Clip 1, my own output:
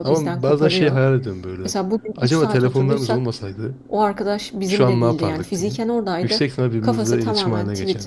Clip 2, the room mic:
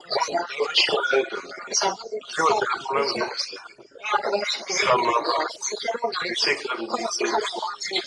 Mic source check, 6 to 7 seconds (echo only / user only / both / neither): echo only